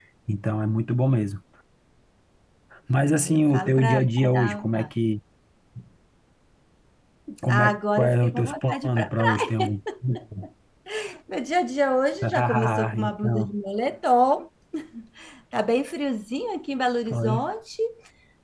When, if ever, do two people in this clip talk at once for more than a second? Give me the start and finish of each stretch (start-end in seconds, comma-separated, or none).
3.0-4.6, 7.5-9.5, 12.2-13.5